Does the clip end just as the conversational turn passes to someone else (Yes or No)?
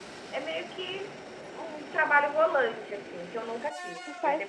No